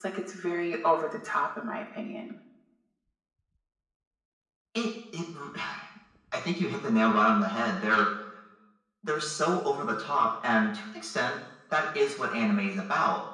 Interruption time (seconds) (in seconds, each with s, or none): none